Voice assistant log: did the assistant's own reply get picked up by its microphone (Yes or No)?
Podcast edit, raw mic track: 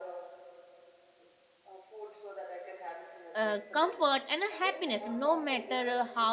Yes